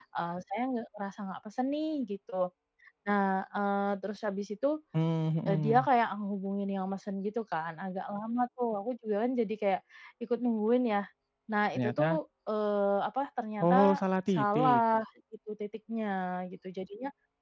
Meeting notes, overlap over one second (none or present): none